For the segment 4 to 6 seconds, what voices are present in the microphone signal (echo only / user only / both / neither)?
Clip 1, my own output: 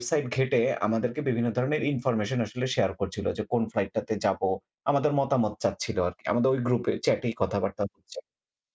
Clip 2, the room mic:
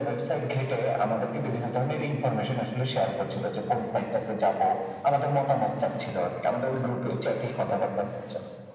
echo only